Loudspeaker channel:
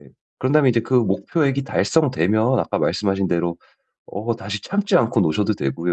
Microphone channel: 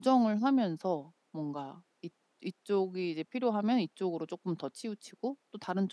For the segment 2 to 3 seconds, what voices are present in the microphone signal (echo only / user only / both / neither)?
user only